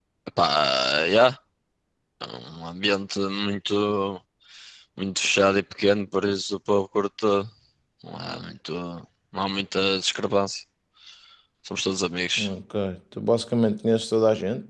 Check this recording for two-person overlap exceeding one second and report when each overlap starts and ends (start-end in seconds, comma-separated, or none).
none